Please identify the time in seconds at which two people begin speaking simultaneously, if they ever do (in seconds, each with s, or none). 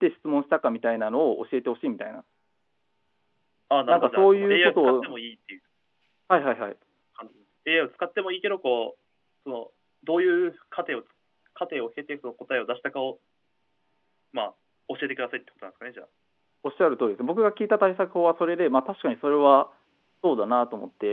3.9 s